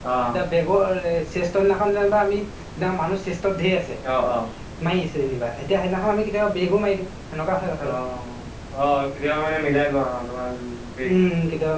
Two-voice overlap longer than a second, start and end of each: none

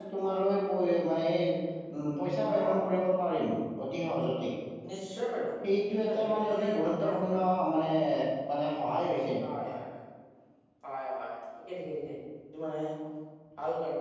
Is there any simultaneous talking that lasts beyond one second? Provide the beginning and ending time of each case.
6.0-7.3

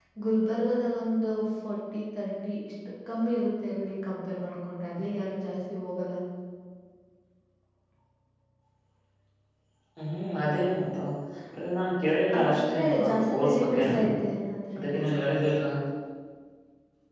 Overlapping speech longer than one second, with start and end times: 12.4-13.8

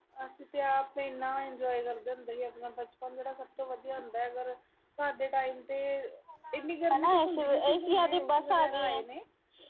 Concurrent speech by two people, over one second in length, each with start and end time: 6.9-9.0

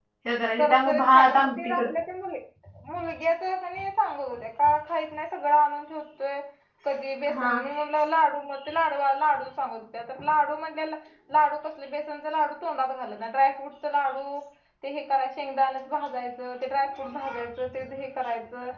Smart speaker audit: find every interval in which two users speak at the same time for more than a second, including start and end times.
0.6-1.9

